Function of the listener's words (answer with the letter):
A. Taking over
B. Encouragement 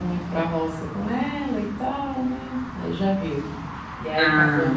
B